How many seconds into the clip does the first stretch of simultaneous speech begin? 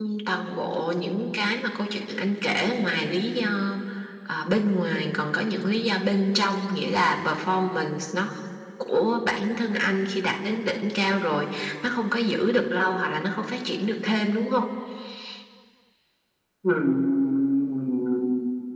none

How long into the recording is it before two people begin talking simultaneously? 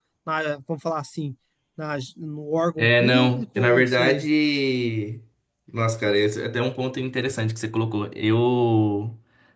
2.8 s

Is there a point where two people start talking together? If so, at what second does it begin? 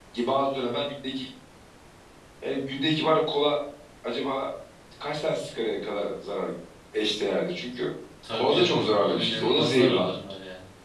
8.3 s

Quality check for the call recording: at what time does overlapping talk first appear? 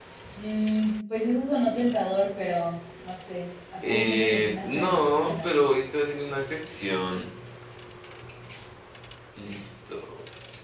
3.8 s

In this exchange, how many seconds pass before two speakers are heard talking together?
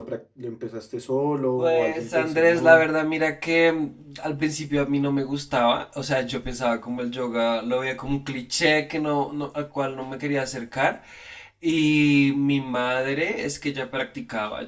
1.6 s

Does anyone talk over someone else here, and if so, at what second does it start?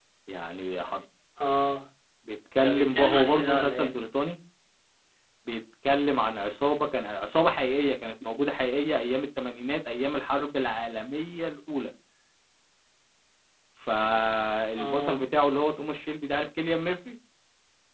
2.6 s

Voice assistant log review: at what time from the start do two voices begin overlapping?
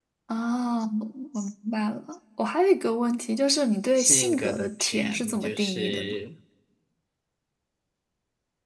4.0 s

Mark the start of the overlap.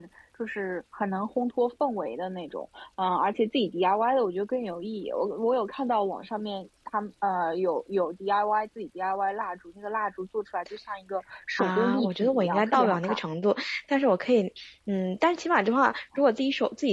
11.6 s

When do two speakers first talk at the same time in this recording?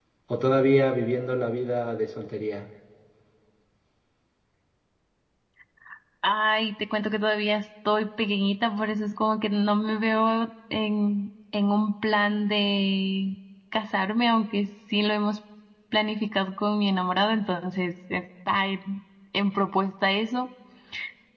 none

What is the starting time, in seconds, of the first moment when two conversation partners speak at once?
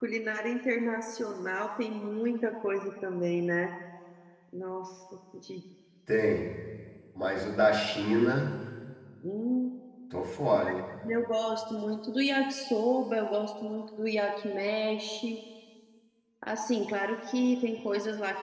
none

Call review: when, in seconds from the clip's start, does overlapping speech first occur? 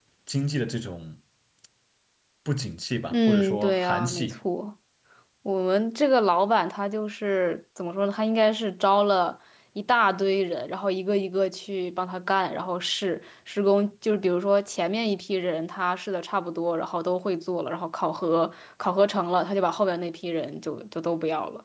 3.1 s

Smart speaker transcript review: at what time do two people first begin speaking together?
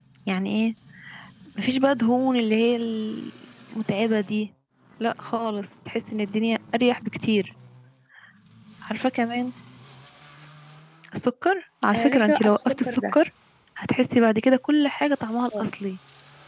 11.9 s

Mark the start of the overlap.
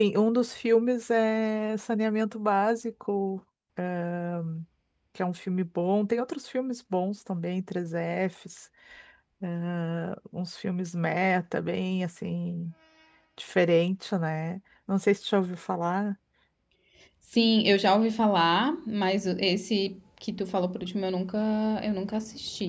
none

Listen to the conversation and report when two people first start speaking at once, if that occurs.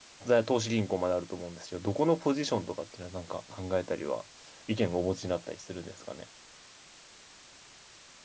none

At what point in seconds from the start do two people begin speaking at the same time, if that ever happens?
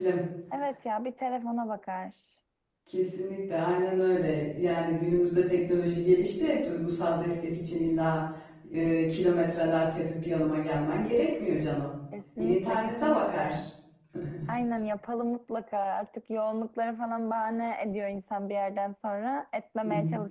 12.4 s

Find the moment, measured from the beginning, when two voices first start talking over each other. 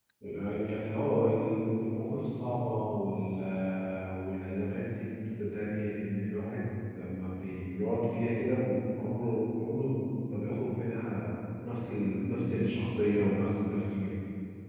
none

